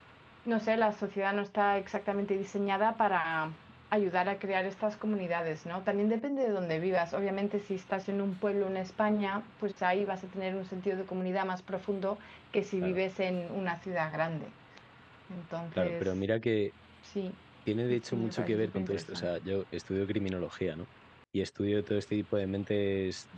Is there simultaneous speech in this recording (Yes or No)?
Yes